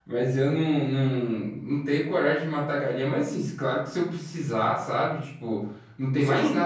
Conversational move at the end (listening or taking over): listening